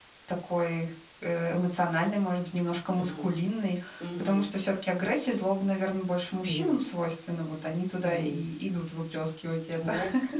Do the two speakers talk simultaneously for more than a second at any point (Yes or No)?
No